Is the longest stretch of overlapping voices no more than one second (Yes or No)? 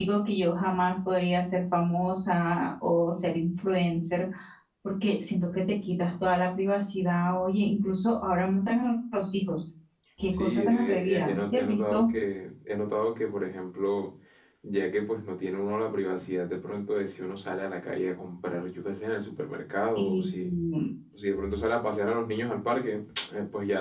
No